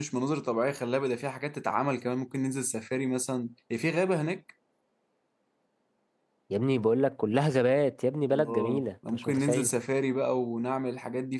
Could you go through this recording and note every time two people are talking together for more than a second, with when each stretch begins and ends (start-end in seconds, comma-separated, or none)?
8.3-9.7